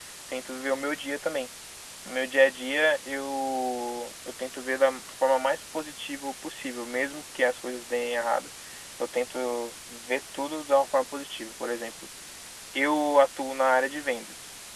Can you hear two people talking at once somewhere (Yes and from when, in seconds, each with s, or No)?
No